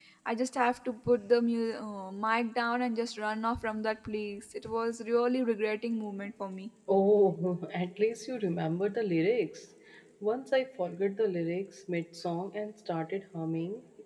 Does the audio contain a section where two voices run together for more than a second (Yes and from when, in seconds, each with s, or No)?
No